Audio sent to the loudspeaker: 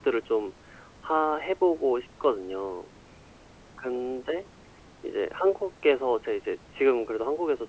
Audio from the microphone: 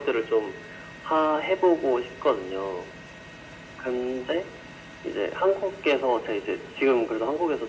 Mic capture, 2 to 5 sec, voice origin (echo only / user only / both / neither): echo only